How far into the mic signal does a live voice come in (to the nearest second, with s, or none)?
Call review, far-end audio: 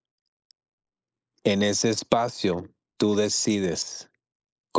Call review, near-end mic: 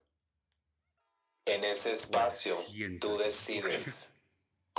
2 s